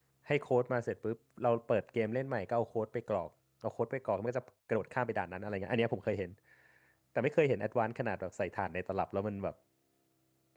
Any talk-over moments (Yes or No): No